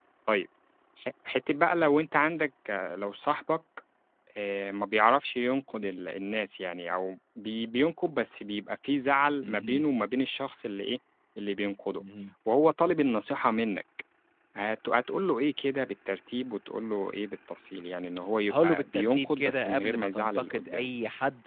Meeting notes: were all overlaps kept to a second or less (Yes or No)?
No